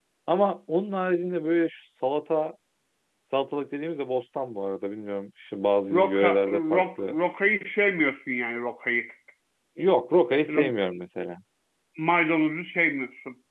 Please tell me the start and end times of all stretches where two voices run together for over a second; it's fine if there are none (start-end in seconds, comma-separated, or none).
5.9-7.2